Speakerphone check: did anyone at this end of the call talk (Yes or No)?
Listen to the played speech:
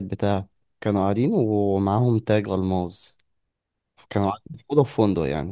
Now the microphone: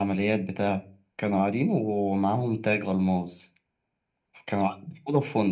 No